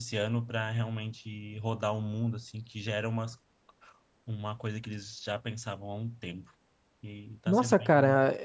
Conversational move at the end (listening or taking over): taking over